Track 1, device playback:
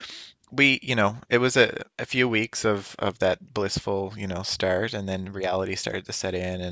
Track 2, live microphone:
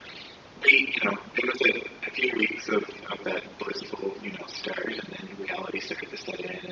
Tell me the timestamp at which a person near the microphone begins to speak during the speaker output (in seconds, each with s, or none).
none